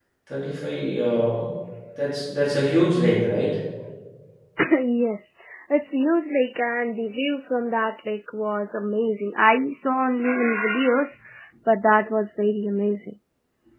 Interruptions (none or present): none